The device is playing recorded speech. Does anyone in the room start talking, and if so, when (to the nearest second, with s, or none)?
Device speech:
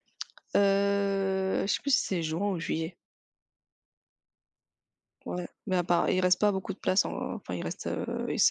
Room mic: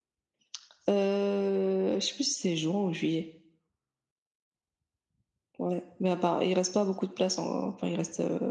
none